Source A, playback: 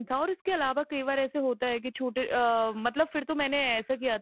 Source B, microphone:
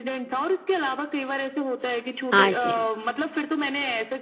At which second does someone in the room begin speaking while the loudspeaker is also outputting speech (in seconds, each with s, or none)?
2.4 s